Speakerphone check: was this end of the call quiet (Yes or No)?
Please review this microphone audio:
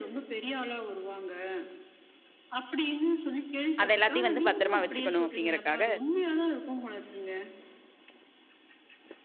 No